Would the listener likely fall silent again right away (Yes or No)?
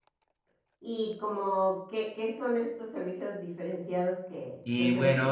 No